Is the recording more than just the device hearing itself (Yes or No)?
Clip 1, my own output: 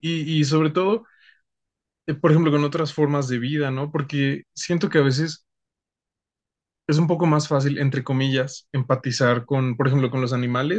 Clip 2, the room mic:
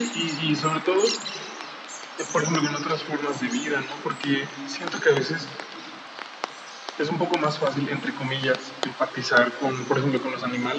No